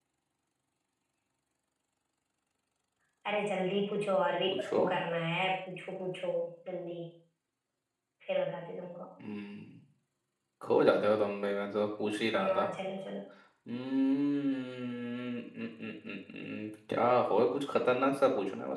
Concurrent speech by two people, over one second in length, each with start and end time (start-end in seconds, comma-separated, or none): none